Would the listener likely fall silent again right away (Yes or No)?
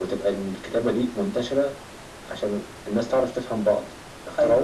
Yes